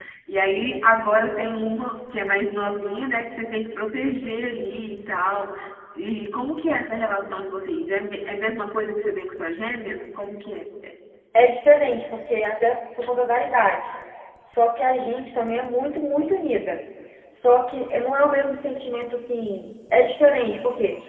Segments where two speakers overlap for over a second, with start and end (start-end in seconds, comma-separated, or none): none